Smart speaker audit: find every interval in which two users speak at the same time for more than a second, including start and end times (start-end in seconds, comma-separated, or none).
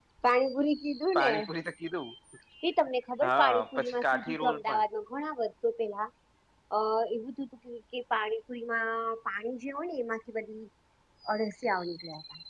3.3-4.8